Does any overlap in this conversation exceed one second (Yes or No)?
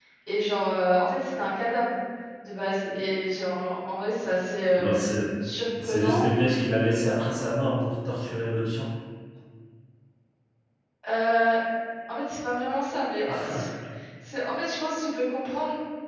No